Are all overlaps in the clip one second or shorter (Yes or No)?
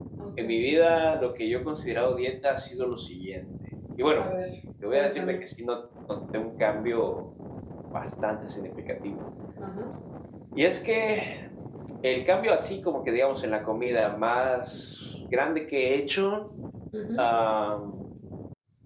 Yes